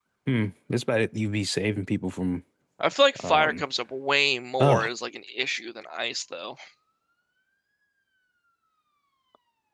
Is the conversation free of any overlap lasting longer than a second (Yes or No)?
Yes